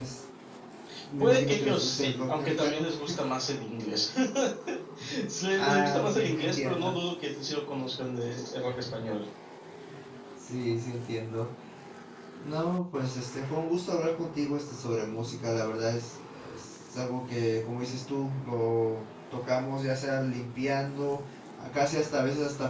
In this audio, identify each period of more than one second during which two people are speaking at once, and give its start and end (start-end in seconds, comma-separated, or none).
1.2-2.8, 5.5-6.9